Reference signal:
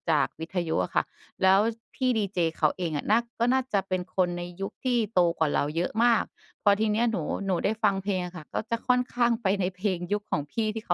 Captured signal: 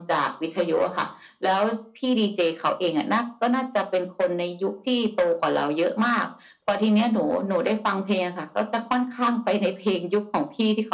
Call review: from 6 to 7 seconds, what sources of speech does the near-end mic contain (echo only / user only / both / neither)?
echo only